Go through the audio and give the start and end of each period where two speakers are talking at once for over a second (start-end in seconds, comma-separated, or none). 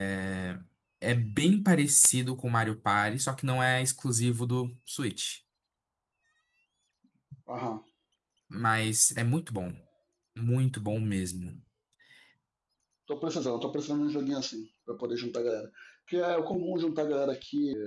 none